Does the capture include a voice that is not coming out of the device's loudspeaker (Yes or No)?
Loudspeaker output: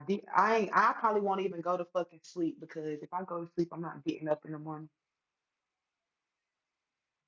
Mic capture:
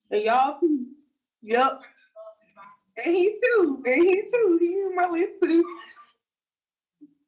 Yes